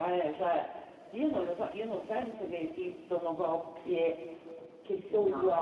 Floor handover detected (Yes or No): No